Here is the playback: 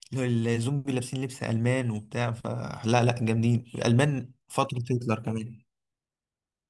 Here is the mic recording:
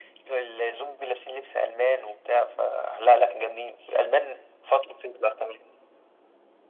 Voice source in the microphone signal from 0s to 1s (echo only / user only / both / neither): echo only